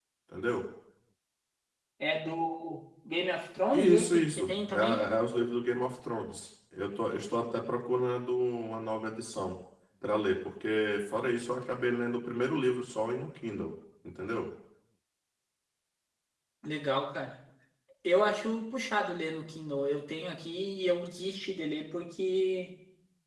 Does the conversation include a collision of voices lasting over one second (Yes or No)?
Yes